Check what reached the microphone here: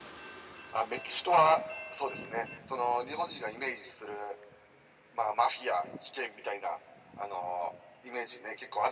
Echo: present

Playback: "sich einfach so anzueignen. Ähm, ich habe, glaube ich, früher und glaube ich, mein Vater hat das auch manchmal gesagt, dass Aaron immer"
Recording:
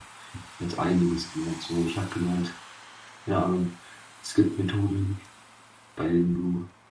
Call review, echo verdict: none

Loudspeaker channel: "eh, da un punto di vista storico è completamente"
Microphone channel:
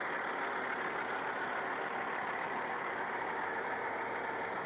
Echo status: none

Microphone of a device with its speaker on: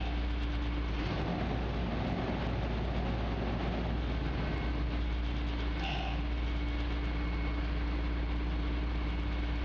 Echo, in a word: none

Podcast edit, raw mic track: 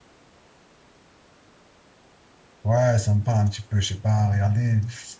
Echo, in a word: none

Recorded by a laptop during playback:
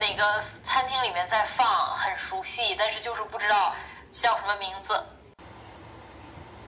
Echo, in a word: present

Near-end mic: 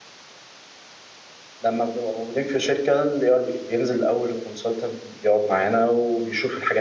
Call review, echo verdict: none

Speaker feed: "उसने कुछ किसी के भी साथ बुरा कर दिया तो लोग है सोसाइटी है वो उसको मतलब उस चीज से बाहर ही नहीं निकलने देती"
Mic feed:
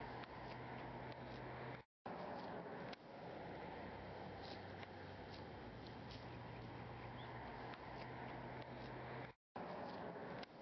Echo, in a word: none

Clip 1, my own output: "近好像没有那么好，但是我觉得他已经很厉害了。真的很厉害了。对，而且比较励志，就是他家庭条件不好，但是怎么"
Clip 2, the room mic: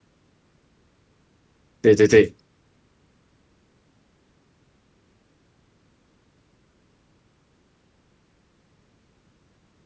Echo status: none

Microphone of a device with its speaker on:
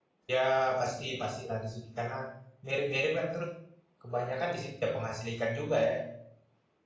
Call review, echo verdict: none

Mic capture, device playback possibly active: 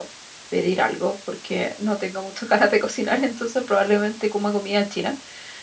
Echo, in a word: none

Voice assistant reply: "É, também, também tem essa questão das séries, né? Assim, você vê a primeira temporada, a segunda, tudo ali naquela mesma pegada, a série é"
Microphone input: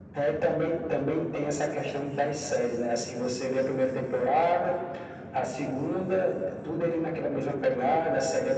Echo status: present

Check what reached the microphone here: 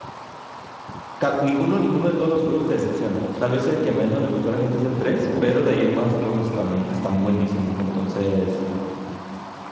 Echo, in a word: none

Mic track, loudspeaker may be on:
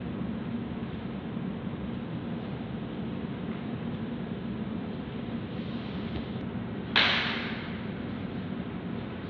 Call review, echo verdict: none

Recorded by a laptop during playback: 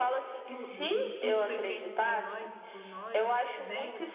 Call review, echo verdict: present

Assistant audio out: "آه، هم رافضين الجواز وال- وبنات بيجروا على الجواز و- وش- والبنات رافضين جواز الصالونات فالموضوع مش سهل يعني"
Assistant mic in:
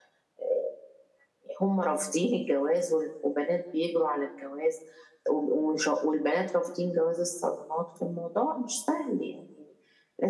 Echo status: present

